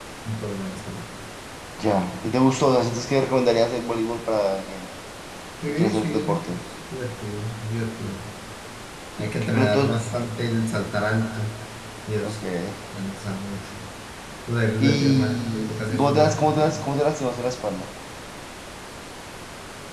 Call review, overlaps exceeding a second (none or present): present